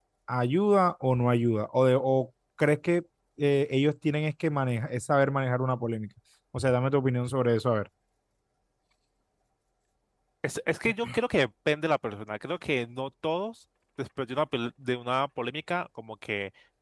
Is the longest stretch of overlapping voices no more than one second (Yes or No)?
Yes